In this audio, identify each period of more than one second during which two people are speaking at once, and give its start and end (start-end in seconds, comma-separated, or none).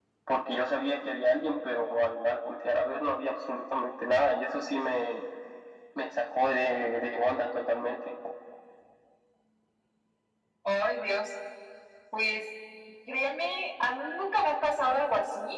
none